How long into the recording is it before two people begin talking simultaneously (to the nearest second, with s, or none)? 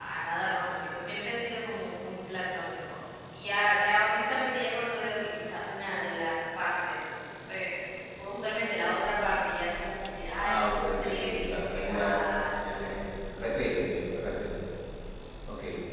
10 s